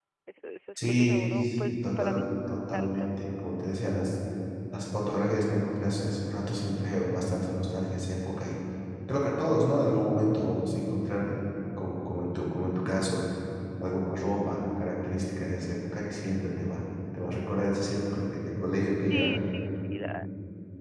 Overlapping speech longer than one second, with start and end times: 0.9-2.3

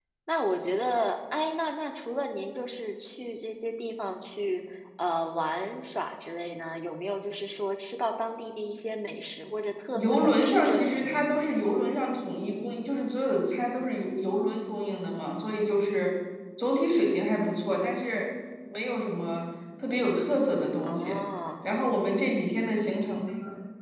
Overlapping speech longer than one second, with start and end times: 9.9-11.3

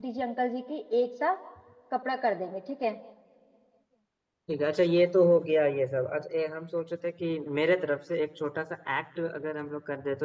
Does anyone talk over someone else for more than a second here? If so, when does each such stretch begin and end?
none

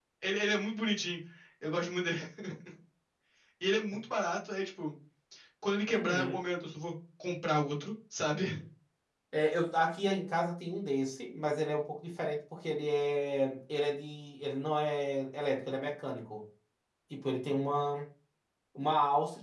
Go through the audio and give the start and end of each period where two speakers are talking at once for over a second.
none

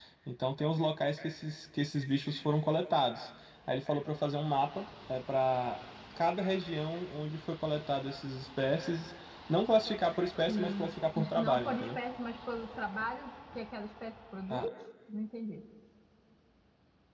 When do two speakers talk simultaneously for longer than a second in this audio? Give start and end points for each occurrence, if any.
10.5-12.0

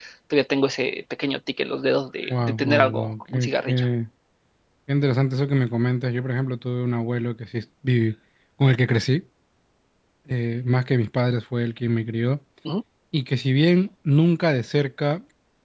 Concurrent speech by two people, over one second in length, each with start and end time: 2.3-3.9

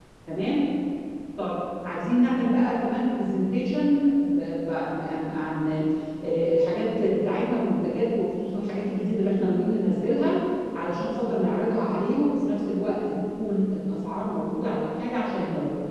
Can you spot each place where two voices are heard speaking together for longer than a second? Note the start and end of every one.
none

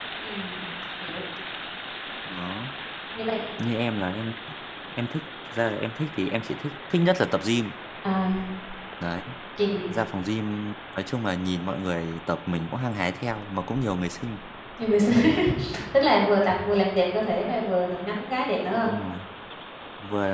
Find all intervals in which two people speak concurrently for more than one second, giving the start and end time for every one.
none

